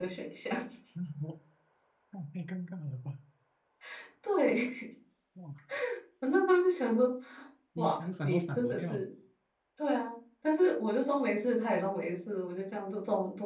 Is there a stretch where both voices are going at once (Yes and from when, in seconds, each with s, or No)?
Yes, from 7.8 s